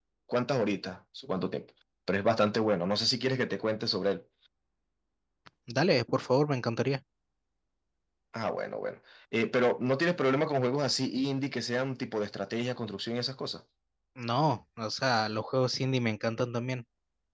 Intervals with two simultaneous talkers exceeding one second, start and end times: none

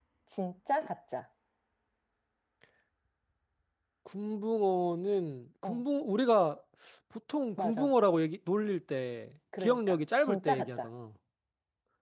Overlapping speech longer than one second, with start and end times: 9.6-10.9

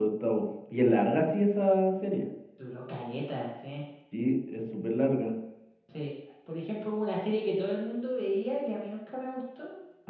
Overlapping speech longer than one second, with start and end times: none

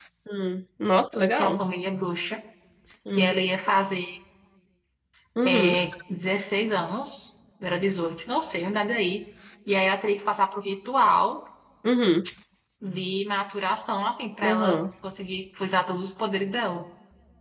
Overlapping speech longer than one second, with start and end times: none

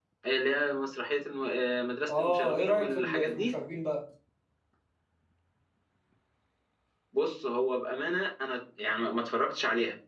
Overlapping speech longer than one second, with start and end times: 2.1-3.5

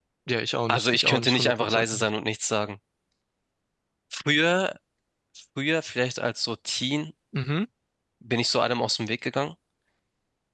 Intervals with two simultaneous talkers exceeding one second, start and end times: 0.7-2.1

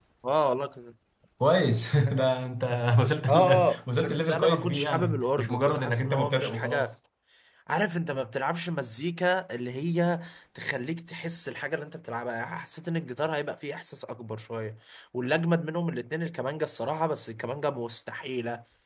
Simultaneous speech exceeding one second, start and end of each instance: 3.3-6.9

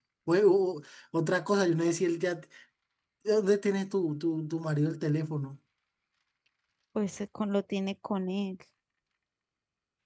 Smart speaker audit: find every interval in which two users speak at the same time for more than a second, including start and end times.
none

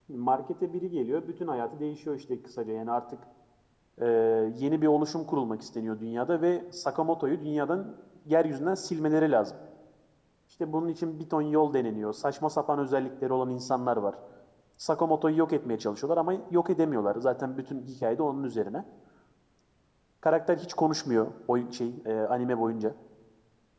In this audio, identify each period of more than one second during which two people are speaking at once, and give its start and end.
none

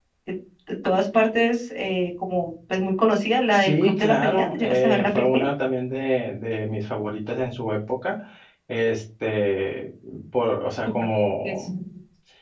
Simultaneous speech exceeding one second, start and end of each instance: 3.5-5.4

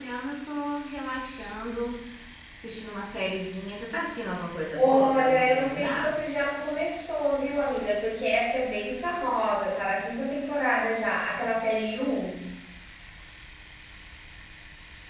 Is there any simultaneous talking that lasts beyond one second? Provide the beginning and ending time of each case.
4.8-6.1

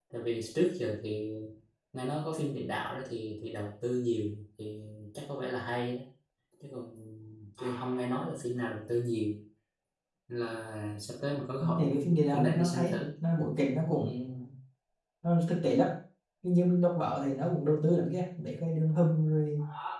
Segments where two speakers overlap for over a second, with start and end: 11.6-13.0

